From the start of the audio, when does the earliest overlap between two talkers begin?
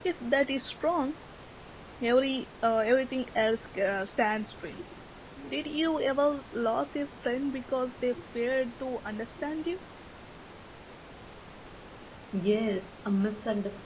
none

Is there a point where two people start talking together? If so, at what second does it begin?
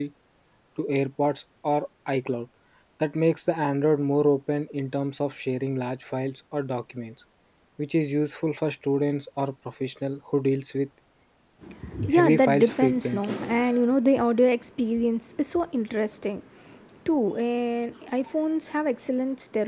12.1 s

